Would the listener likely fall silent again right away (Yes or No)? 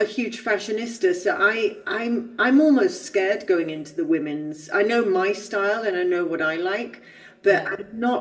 Yes